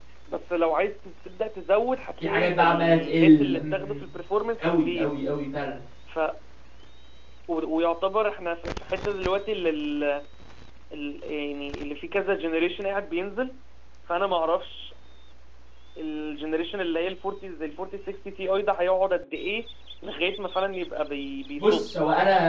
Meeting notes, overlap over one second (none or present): present